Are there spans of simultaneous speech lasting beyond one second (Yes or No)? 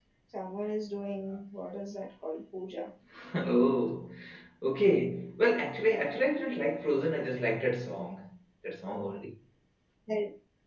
No